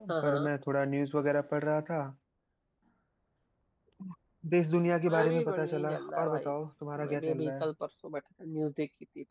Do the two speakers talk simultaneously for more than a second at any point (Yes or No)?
Yes